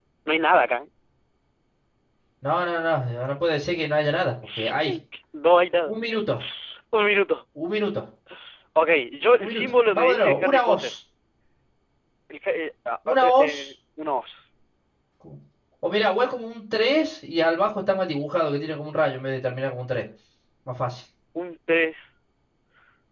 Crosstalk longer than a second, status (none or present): present